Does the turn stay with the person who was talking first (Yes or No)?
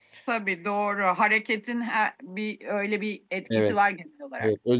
No